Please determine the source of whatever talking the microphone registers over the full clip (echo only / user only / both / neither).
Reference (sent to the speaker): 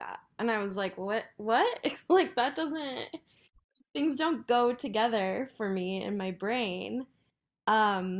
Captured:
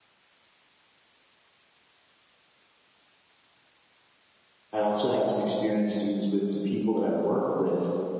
user only